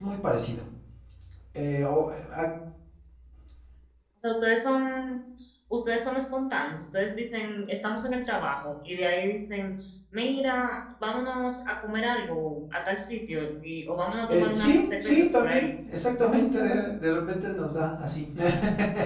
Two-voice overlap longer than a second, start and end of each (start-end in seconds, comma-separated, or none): 14.2-15.7